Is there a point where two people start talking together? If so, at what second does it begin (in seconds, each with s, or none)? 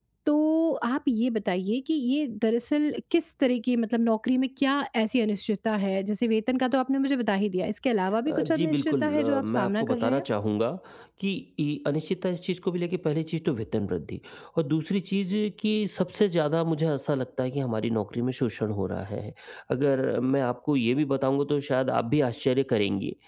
8.3 s